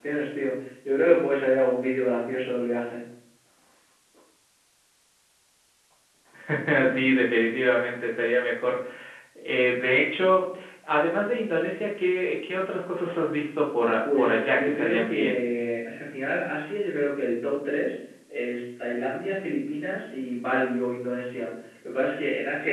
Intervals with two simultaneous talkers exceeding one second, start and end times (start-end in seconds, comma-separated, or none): 14.0-15.5